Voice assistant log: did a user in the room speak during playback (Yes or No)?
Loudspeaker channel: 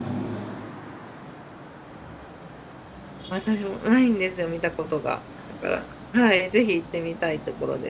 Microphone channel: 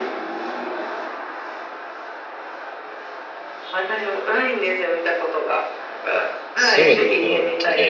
Yes